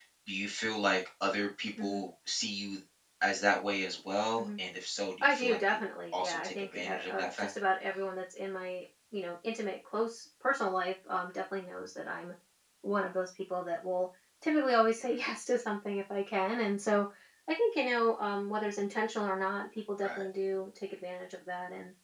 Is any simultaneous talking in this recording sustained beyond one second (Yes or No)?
Yes